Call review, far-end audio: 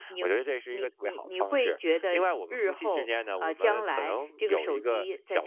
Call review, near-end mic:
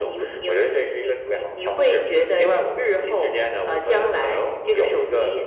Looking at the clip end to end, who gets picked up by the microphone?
echo only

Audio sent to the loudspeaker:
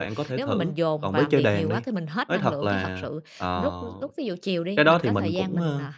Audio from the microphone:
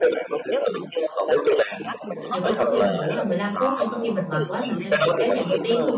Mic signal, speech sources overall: both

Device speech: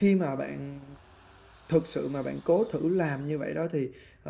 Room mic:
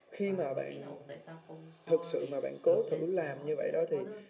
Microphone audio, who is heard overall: both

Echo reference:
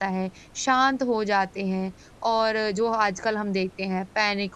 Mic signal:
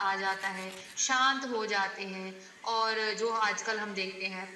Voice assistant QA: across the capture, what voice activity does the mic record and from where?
echo only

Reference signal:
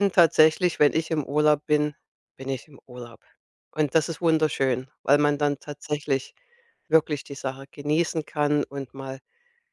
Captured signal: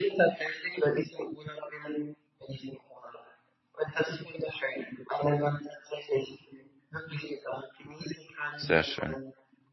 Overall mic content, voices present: both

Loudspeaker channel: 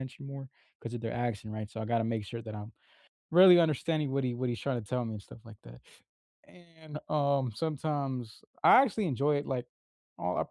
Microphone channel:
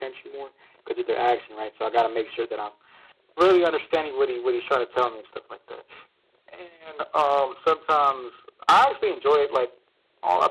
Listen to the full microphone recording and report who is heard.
echo only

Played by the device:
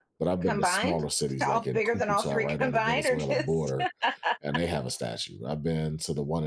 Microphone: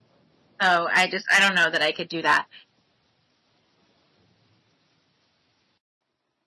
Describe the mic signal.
user only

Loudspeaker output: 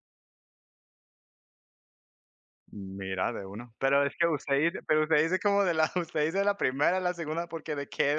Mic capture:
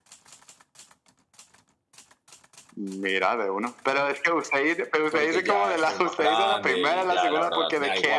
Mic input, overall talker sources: both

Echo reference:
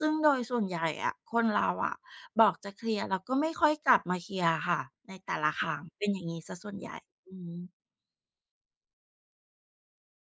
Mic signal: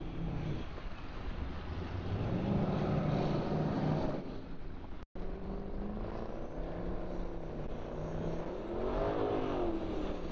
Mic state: neither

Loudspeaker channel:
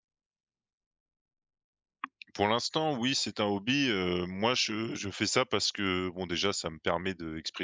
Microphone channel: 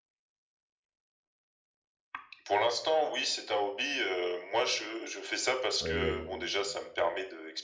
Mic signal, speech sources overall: both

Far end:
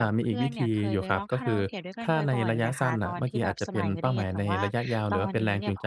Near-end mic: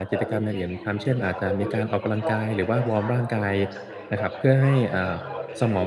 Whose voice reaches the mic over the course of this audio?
both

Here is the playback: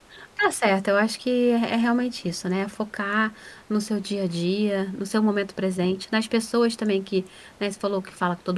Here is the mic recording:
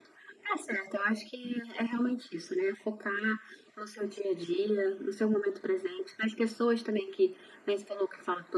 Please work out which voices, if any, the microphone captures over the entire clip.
echo only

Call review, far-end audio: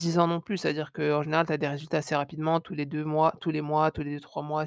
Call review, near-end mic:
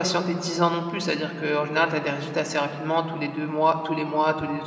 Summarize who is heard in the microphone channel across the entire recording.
echo only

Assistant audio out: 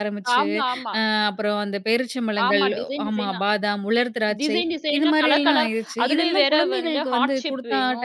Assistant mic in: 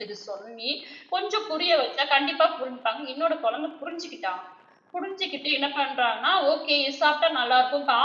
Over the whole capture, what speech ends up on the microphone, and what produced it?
user only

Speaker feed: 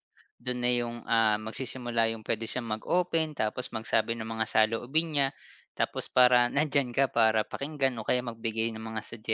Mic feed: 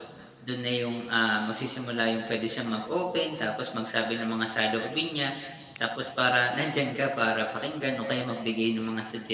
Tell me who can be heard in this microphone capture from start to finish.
echo only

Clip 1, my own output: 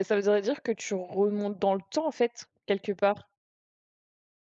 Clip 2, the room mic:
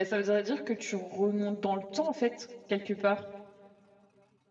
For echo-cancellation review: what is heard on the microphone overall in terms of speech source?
echo only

